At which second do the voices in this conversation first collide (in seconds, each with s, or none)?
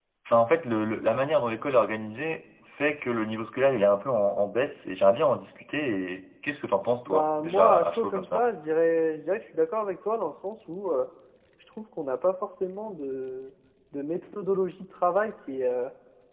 7.1 s